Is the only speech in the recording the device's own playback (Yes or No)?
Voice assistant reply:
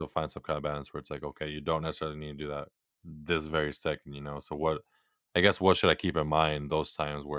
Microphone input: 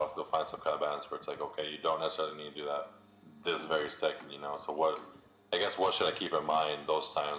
Yes